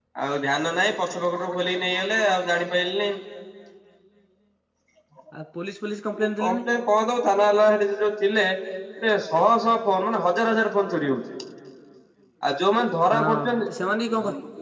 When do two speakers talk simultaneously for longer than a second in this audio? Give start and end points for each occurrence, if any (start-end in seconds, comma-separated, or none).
none